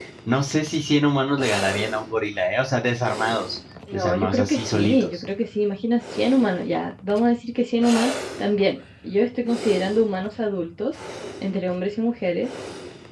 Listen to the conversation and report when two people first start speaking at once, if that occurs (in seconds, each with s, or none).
3.9 s